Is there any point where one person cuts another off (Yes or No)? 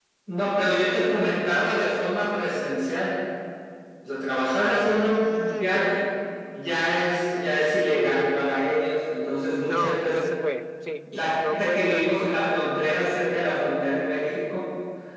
Yes